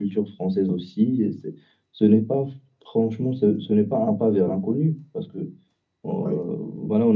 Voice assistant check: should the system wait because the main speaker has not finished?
Yes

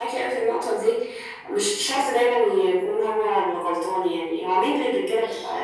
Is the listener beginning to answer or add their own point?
No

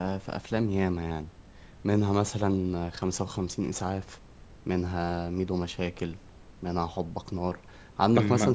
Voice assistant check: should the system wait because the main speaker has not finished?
Yes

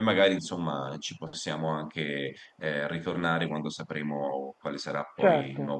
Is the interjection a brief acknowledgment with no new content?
No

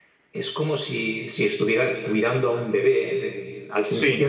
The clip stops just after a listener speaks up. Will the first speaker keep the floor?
Yes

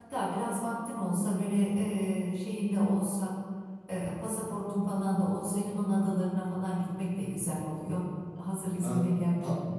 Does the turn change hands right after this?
Yes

